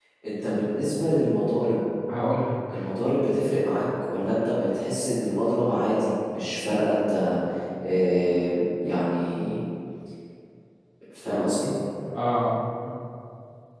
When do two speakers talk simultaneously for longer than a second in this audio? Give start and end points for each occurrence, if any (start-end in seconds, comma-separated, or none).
none